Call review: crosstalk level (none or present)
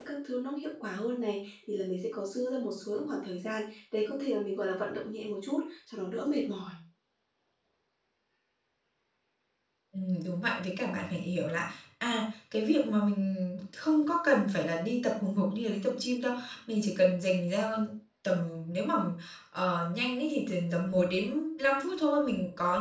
none